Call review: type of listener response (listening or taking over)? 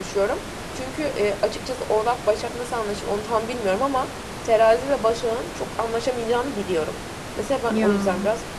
listening